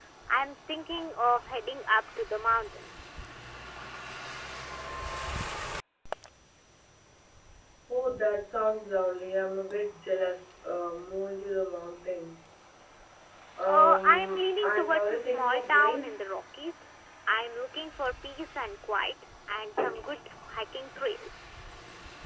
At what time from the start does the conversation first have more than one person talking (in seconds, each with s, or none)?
13.7 s